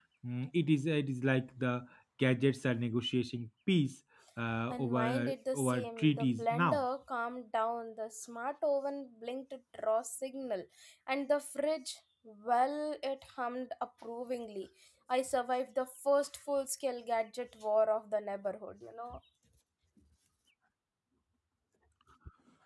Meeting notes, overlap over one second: present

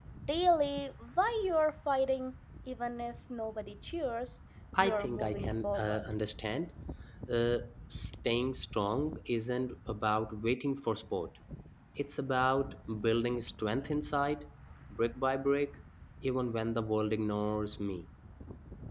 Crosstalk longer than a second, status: present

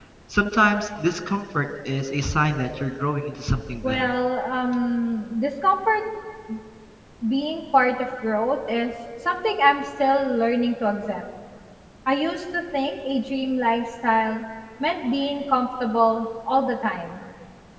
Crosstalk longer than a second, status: none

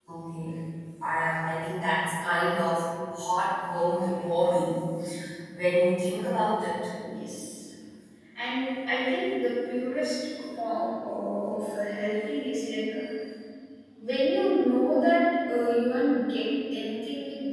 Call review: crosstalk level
none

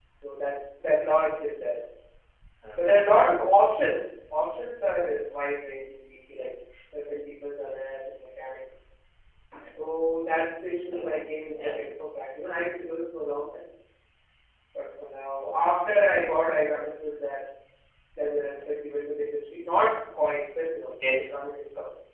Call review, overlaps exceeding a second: none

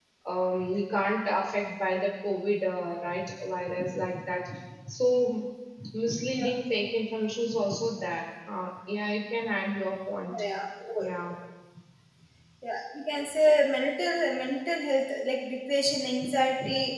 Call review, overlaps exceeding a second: none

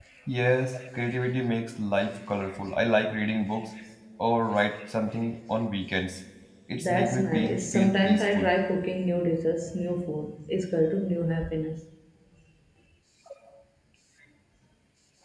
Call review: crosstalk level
present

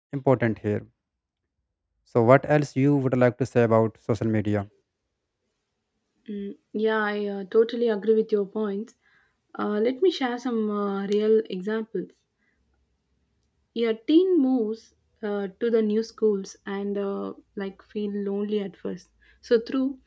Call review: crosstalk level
none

